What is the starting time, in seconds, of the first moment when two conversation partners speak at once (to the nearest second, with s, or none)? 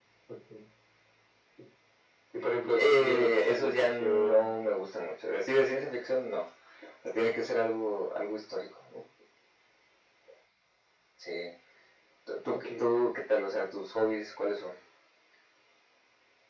3 s